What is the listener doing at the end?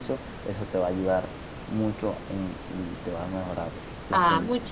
taking over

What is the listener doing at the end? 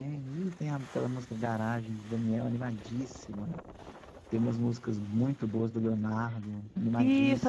taking over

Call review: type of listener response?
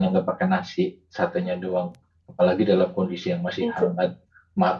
listening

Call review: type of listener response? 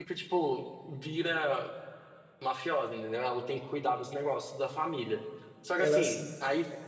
listening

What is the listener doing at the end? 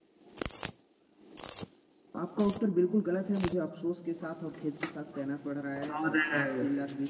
listening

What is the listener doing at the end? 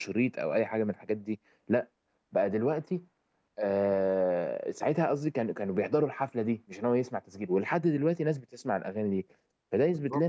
taking over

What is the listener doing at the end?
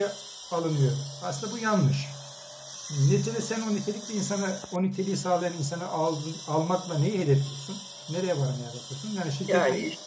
taking over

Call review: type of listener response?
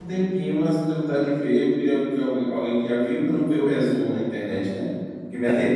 listening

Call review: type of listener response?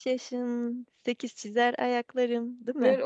taking over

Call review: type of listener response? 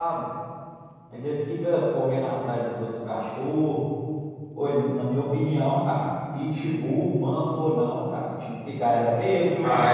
taking over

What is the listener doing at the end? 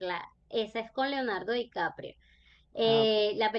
listening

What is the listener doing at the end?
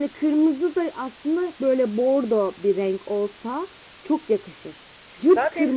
taking over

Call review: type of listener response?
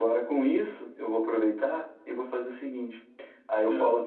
listening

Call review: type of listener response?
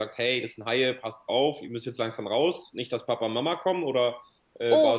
taking over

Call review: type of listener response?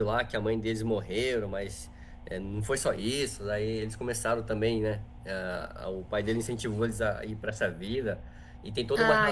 listening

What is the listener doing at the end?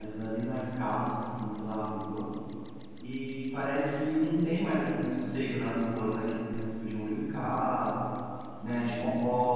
listening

